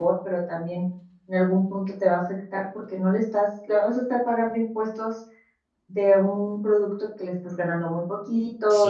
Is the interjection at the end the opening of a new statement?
No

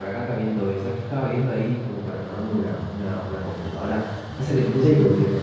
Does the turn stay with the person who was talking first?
Yes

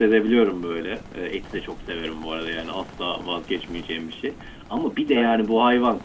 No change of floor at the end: Yes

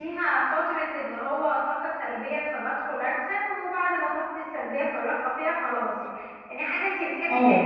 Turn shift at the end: No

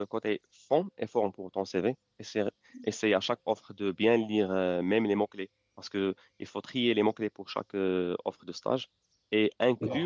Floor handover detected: No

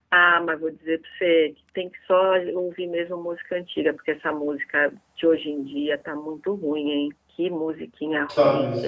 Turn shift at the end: No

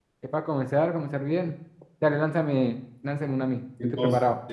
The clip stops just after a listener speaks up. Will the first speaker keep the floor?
No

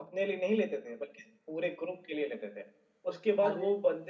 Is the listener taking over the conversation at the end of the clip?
No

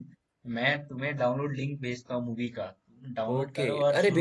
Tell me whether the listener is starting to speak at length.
Yes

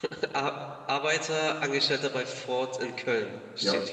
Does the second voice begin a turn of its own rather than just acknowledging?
Yes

